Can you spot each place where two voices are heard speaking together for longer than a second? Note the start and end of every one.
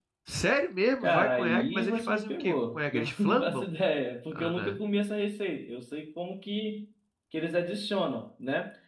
1.0-3.7

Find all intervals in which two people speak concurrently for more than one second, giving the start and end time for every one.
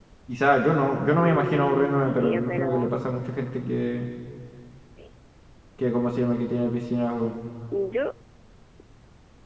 1.1-2.9

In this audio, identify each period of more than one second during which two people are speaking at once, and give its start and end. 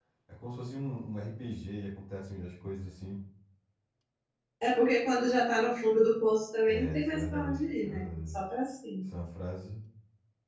6.7-8.3

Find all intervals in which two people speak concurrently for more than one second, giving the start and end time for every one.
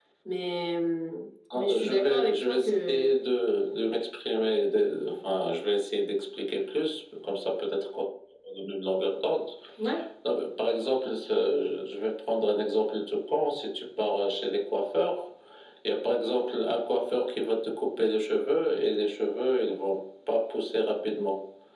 1.5-3.1

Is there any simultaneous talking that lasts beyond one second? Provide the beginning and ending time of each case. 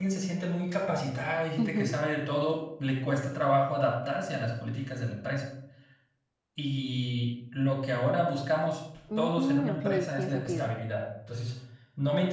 9.2-10.7

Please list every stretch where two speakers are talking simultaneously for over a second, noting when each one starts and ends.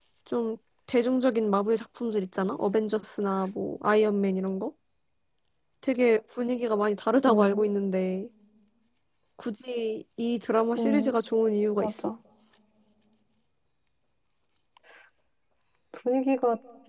none

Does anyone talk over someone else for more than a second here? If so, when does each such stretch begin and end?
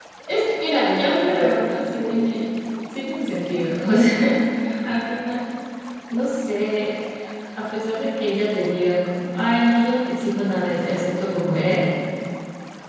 0.8-2.3

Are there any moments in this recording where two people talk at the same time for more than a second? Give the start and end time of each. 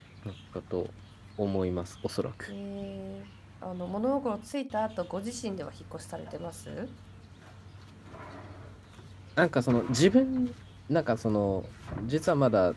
none

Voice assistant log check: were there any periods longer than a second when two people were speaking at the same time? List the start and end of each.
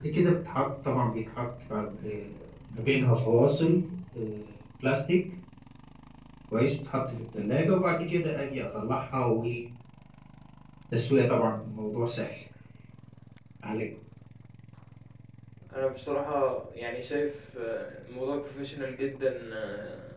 none

